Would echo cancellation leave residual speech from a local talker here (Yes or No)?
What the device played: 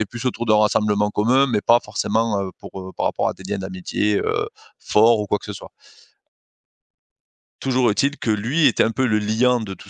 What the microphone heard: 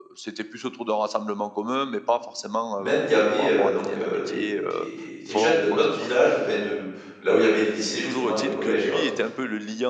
Yes